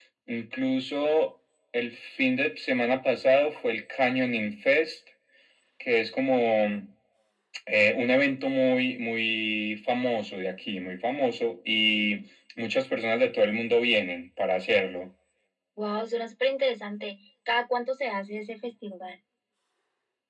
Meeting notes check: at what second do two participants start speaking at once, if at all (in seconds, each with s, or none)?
none